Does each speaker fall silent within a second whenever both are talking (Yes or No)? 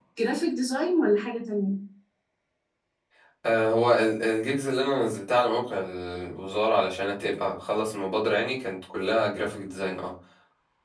Yes